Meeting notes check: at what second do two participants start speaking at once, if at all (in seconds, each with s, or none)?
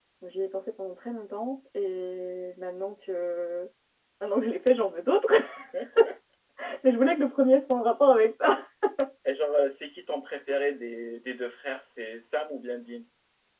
none